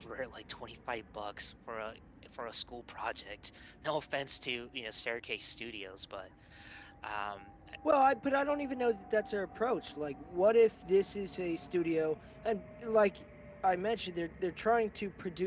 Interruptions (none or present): none